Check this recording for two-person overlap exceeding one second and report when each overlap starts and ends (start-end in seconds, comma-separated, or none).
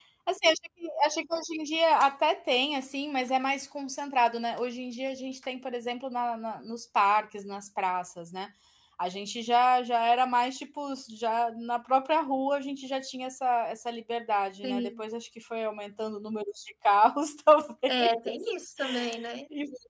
none